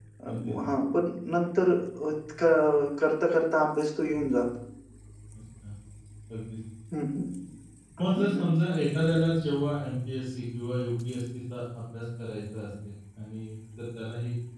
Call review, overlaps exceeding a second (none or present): none